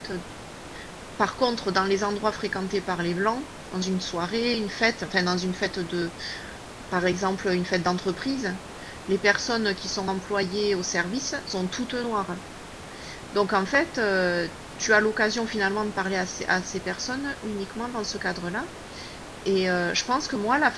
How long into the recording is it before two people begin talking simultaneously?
none

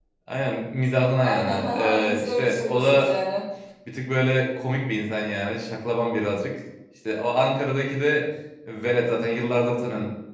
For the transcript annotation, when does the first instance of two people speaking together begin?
1.2 s

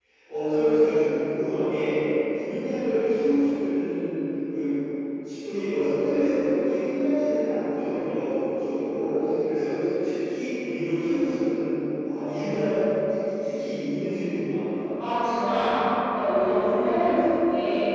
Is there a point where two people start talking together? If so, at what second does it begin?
none

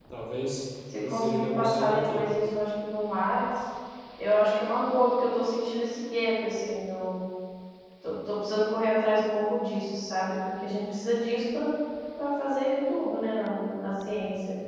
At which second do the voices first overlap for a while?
1.1 s

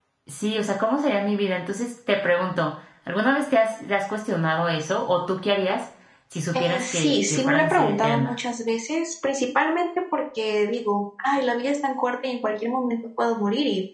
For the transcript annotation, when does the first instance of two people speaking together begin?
6.5 s

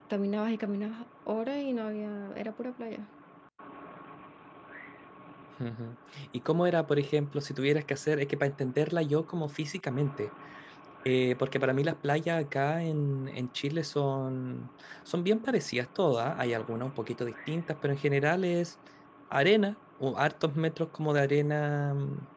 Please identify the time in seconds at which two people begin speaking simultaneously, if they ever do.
none

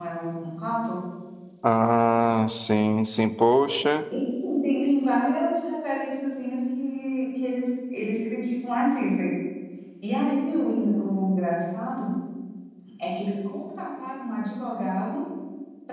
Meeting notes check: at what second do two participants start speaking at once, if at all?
none

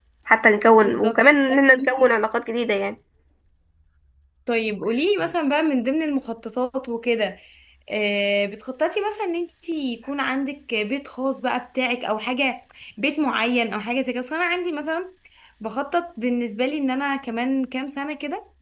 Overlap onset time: 0.8 s

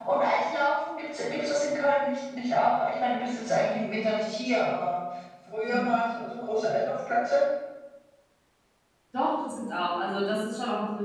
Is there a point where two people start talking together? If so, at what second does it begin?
none

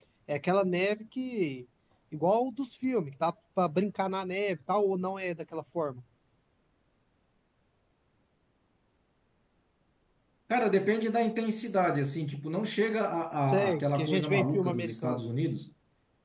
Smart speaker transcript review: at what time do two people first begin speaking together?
13.5 s

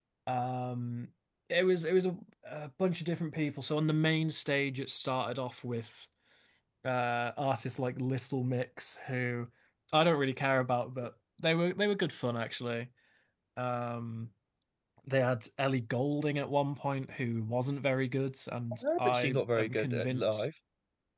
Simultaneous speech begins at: 18.8 s

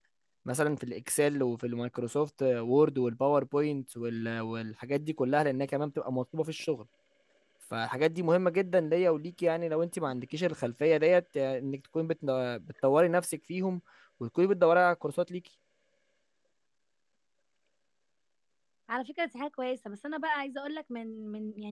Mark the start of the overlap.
none

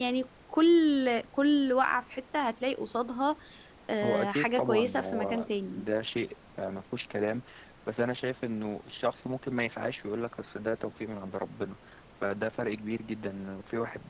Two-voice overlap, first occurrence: 4.0 s

